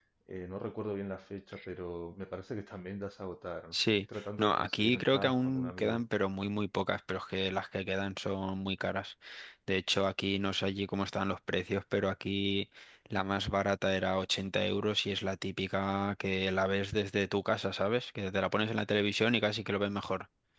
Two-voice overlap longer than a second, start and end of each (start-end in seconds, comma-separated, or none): 3.7-6.0